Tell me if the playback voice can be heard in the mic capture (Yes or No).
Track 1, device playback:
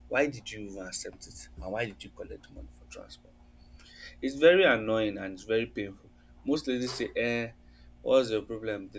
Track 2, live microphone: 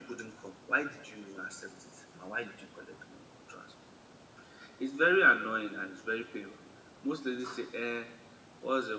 Yes